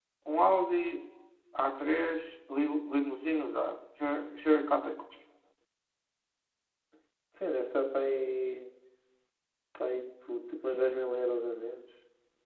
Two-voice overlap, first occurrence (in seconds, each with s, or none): none